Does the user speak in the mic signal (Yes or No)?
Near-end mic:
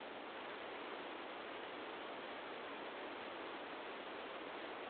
No